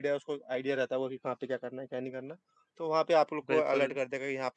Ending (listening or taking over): listening